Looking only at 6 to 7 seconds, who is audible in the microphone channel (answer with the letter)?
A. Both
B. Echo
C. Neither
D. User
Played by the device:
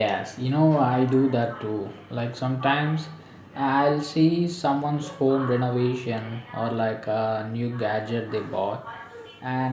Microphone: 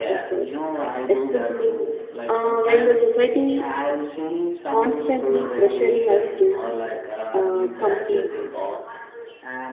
A